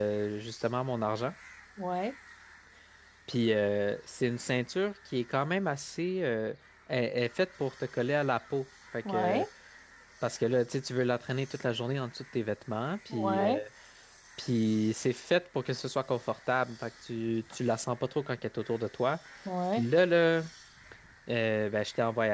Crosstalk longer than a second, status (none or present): none